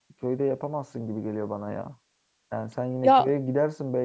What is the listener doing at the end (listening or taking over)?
listening